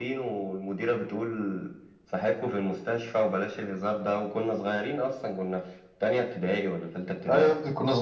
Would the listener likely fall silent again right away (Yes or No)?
No